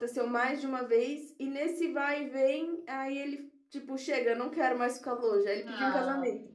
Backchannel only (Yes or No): No